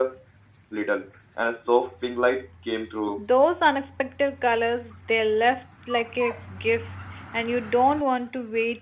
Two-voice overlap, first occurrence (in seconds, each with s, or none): none